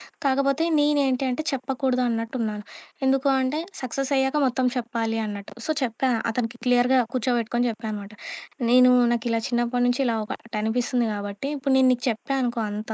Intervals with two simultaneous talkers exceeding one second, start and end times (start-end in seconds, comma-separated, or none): none